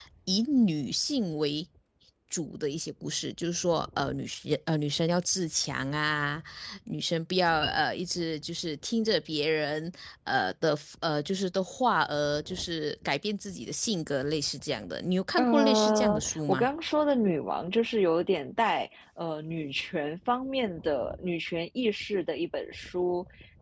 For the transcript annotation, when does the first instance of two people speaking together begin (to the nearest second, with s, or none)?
15 s